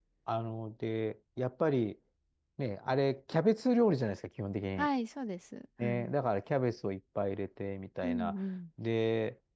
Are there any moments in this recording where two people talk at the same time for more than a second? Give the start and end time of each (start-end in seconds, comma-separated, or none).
none